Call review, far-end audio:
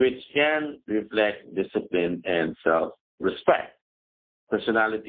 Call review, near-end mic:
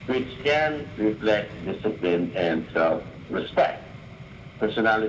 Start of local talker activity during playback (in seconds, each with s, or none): none